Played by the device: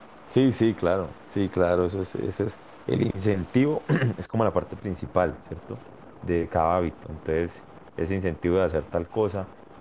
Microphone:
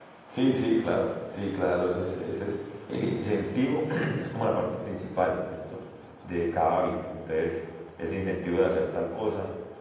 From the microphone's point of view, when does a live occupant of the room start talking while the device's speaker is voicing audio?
none

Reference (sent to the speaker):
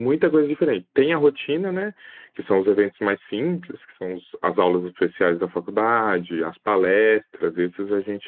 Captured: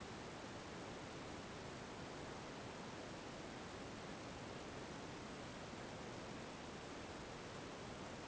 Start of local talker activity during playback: none

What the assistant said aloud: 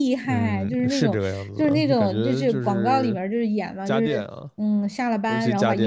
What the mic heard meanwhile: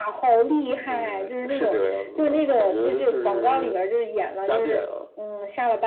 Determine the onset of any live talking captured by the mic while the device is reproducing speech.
none

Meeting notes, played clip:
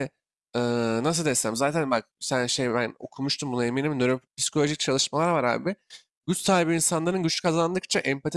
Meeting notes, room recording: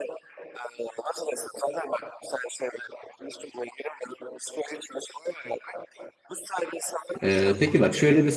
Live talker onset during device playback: 7 s

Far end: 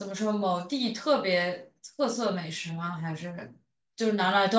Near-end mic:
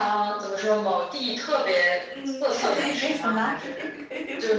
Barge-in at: 2 s

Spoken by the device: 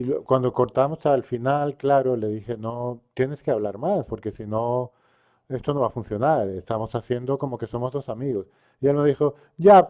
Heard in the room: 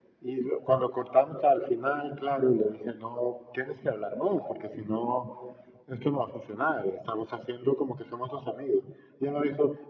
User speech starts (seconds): none

